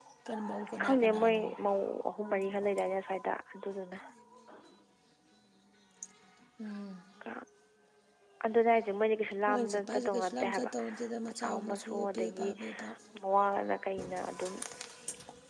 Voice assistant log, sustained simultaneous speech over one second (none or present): present